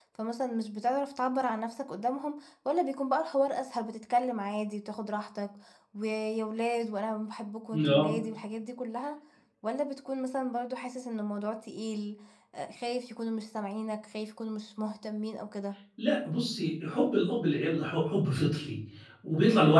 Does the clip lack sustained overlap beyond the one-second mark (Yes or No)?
Yes